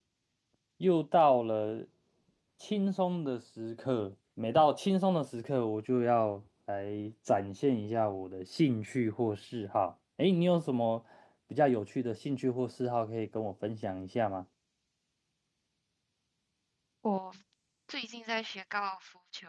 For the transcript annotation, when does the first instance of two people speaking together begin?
none

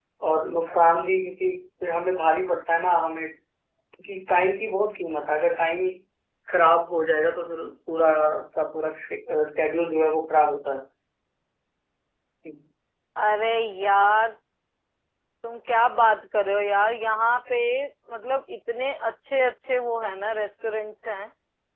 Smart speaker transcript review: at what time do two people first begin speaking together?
none

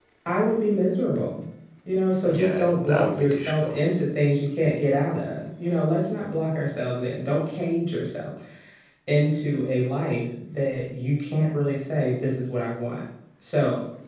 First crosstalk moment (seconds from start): 2.3 s

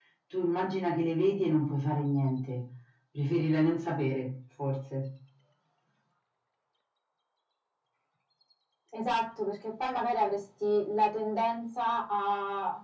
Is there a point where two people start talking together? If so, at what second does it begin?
none

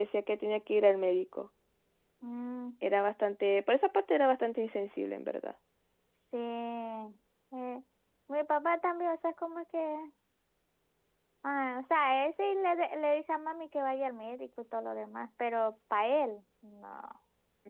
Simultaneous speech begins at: none

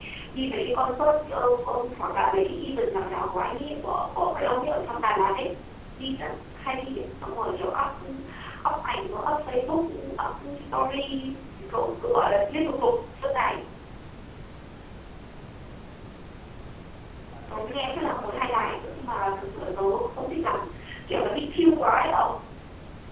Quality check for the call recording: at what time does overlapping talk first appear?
17.5 s

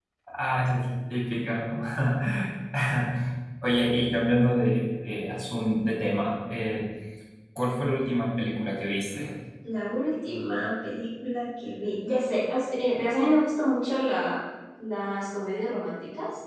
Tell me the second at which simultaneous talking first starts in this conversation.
none

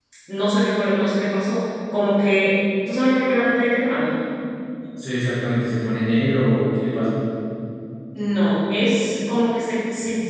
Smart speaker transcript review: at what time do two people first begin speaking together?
none

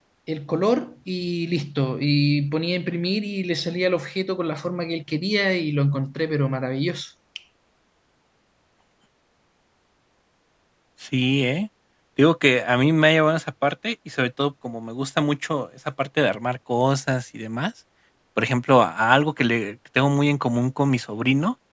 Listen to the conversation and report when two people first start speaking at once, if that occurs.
none

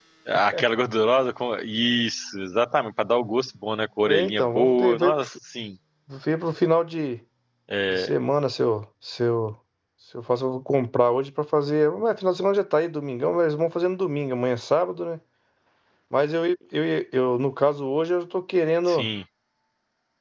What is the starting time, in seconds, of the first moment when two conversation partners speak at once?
4.1 s

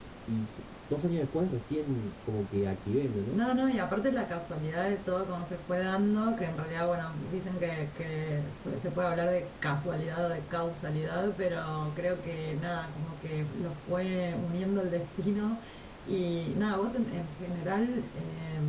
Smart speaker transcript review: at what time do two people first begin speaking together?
none

